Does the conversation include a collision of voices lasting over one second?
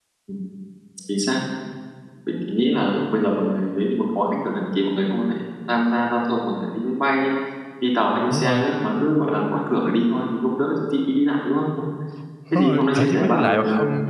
Yes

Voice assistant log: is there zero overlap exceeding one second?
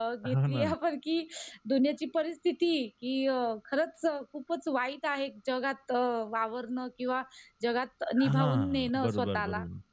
No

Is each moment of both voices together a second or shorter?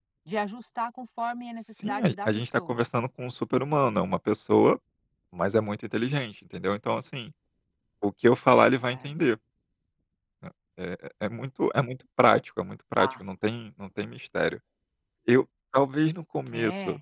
No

